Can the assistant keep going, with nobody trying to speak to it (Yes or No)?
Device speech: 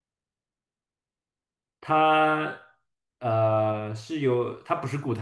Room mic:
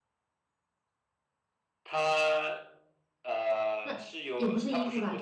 No